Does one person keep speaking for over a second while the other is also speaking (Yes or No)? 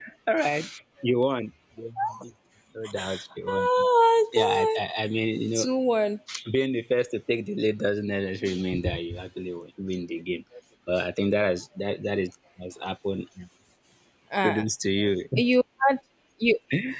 No